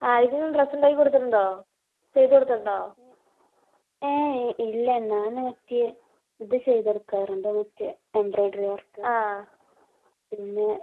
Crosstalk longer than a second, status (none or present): none